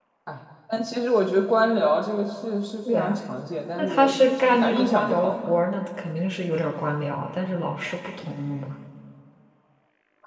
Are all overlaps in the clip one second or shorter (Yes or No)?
No